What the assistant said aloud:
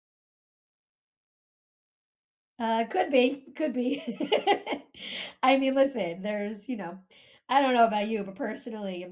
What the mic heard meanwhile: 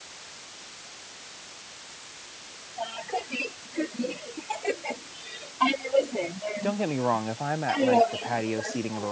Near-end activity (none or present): present